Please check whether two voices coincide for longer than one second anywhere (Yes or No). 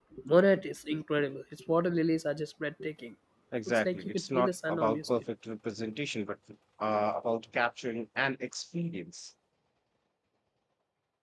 Yes